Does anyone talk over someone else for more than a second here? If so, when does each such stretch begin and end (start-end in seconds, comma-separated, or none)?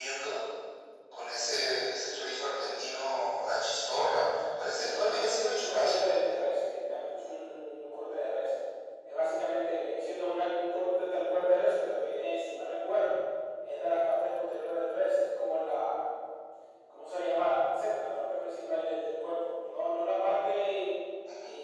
4.8-6.1